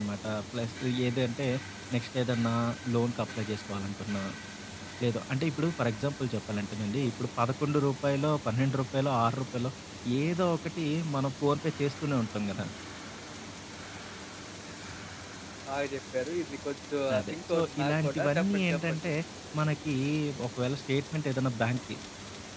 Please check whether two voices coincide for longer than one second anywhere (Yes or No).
Yes